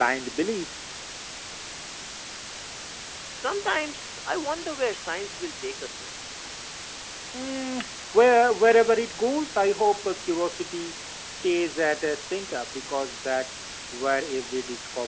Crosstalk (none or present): none